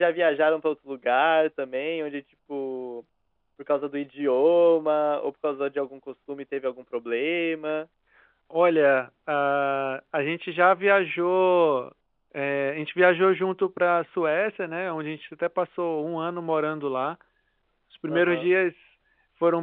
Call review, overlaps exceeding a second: none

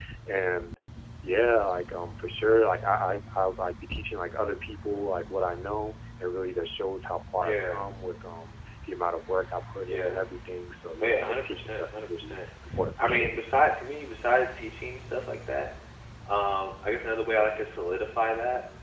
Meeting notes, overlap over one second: present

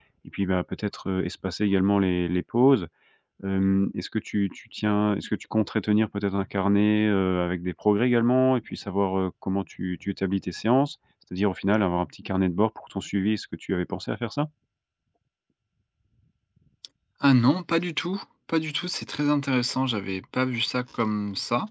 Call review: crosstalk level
none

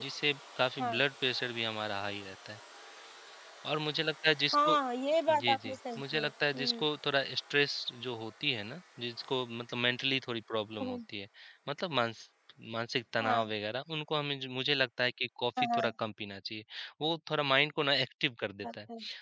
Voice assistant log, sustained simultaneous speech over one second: present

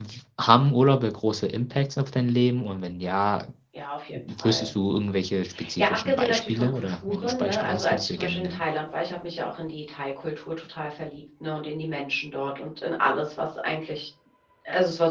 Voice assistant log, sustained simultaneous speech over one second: present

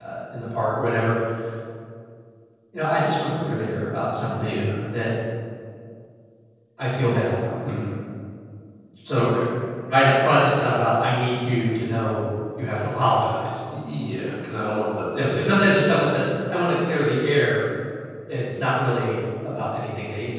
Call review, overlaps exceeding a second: none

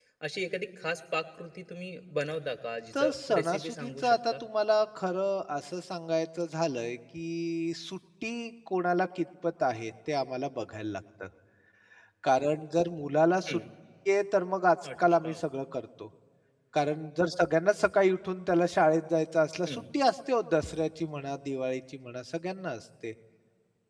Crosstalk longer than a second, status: present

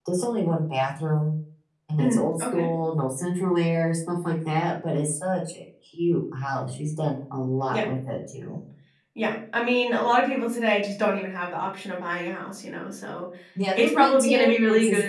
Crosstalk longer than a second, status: present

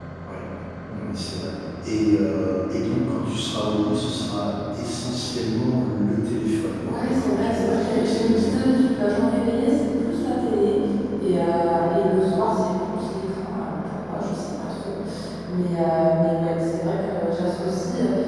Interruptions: present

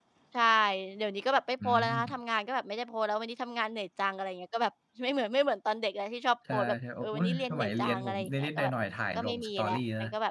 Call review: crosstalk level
present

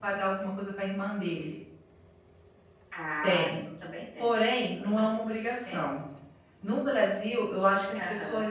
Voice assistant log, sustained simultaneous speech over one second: none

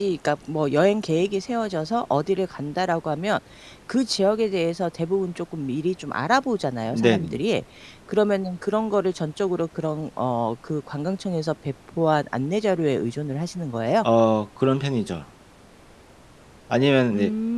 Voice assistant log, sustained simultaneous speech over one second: none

